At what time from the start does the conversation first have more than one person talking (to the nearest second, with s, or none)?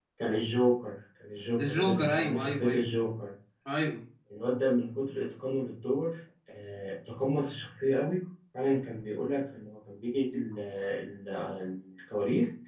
2 s